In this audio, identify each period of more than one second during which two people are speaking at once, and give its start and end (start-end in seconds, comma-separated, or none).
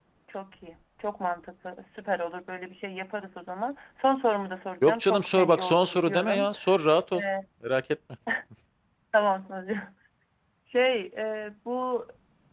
4.8-6.5